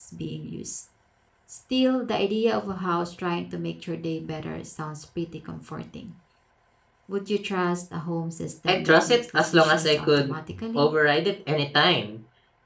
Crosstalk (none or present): present